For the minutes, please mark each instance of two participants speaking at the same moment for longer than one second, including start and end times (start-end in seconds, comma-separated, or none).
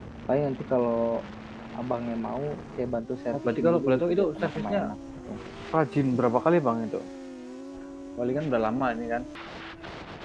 3.3-4.8